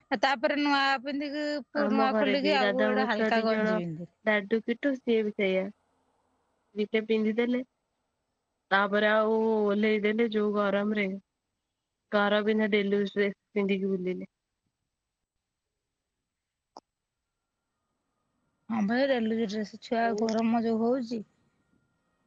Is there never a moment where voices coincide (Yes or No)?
No